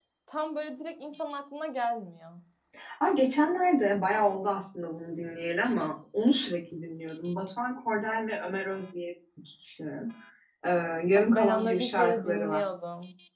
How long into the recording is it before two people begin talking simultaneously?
11.2 s

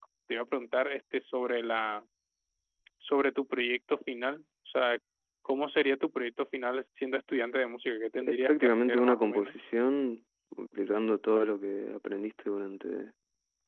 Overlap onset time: 8.2 s

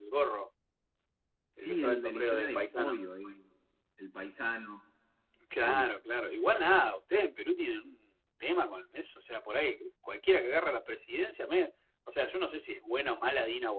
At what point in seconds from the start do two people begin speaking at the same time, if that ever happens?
1.6 s

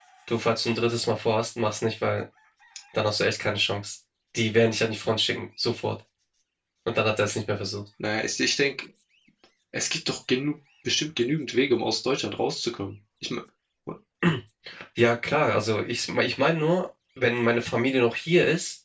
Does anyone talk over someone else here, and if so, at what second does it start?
none

